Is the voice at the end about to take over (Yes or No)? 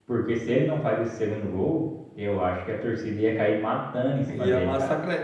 Yes